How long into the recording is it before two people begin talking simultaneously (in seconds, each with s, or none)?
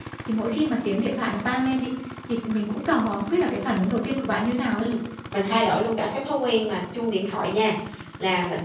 none